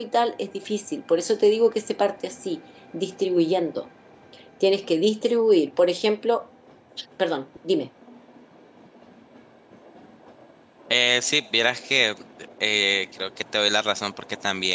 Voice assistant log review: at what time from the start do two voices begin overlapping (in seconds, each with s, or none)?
none